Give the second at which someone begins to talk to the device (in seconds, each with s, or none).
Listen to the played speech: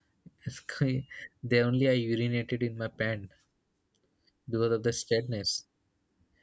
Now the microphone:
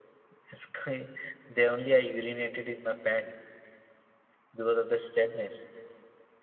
none